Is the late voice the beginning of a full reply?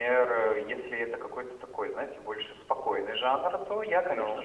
No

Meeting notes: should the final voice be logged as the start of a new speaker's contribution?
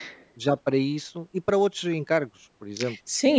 Yes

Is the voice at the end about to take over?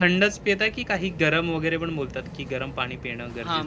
Yes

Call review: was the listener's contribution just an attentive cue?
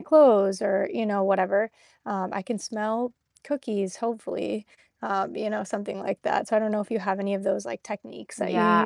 No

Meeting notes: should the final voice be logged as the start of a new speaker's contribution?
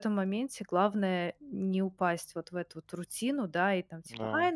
No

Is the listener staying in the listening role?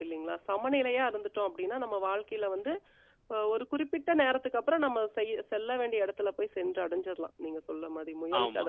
No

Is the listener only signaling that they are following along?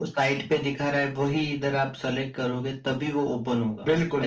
No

